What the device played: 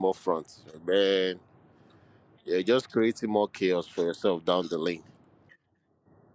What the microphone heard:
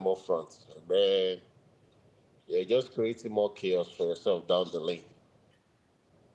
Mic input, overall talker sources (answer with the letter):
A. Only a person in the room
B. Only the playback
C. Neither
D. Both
B